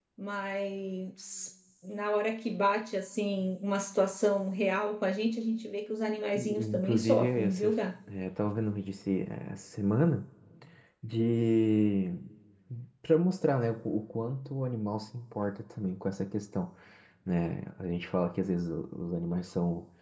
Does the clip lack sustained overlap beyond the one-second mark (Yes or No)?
No